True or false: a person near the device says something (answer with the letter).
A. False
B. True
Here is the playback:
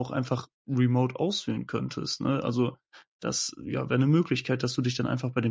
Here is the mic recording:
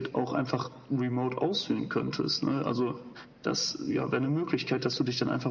A